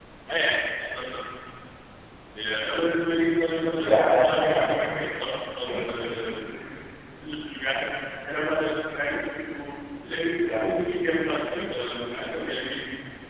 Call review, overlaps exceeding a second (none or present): present